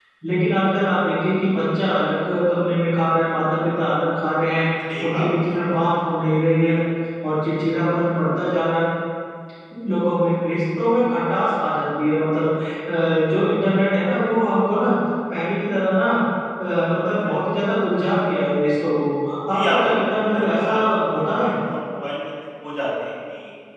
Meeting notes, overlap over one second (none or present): present